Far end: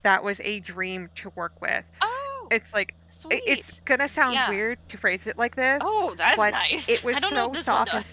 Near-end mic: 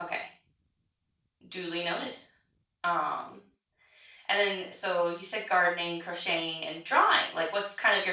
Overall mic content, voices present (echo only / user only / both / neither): user only